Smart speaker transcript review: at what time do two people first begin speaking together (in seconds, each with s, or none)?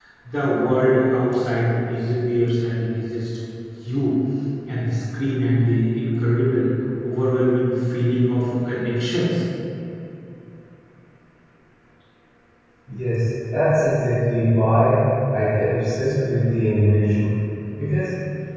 none